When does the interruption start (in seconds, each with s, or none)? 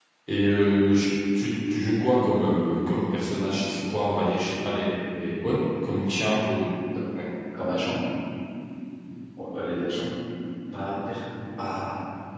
none